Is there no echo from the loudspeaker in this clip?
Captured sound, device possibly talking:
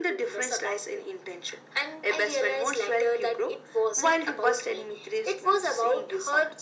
No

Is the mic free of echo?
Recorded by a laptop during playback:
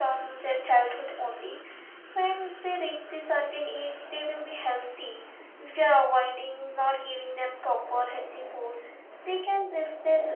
No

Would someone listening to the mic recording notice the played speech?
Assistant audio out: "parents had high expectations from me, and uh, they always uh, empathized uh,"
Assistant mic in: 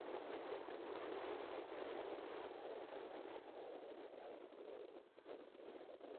No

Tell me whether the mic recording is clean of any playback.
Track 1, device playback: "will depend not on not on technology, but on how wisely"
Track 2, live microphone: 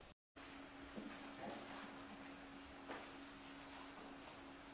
Yes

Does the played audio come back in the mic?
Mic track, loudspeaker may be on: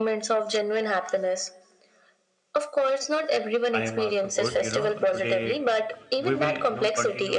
Yes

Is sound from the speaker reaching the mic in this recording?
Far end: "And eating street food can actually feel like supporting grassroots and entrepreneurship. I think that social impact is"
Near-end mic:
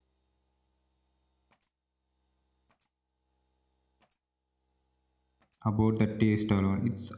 No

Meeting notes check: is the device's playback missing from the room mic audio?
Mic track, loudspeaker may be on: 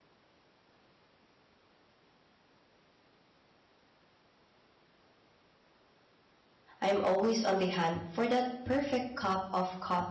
Yes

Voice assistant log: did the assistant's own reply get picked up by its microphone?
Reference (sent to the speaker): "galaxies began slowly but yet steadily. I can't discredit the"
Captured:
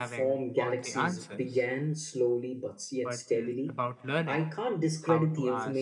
Yes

